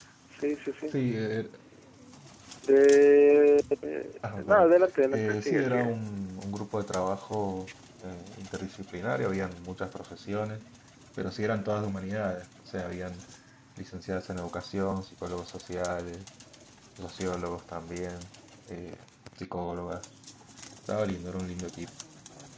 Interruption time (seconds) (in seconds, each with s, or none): 4.2 s